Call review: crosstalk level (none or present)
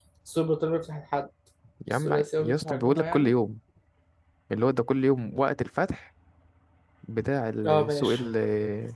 present